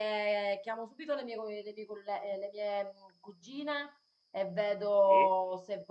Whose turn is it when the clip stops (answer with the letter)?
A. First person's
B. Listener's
A